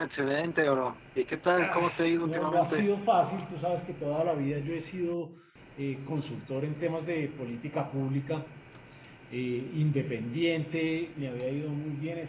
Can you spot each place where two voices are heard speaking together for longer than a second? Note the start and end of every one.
1.6-2.8

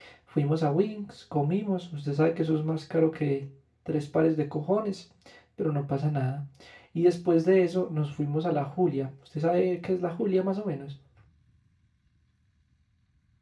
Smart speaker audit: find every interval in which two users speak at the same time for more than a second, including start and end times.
none

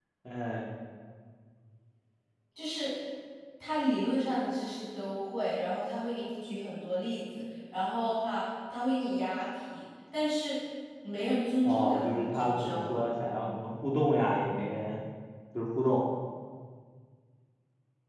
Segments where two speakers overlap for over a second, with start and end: 11.6-13.0

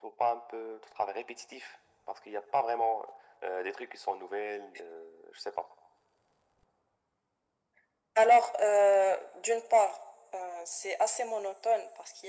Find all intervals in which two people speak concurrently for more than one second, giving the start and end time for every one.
none

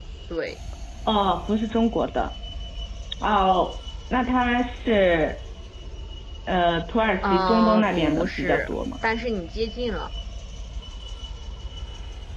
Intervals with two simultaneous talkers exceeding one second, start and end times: 7.2-8.7

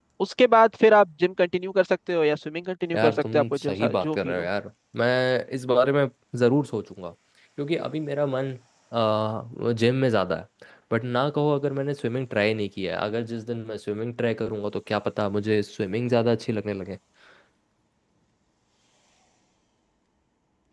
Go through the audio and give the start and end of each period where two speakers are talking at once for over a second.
3.0-4.4

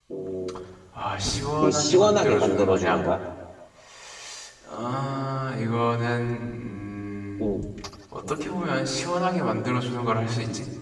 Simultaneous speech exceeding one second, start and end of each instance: 1.6-3.1

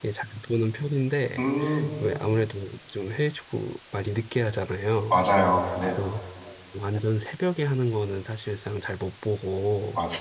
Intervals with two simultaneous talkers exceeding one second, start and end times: none

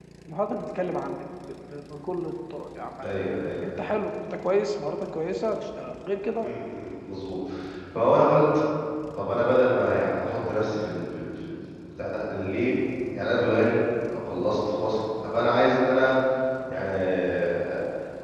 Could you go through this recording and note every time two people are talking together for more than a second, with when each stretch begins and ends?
none

